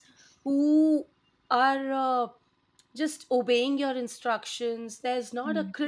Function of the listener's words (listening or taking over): listening